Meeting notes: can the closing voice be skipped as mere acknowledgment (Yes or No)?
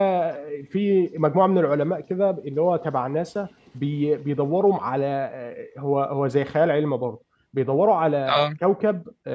Yes